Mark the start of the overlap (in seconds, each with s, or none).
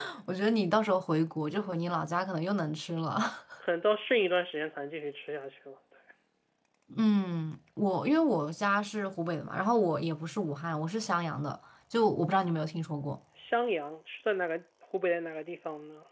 none